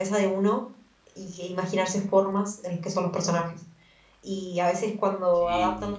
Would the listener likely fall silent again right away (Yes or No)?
Yes